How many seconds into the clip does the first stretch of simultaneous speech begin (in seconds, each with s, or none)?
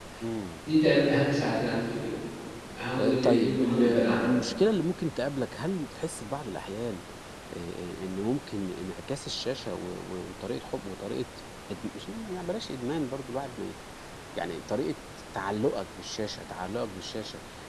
3.0 s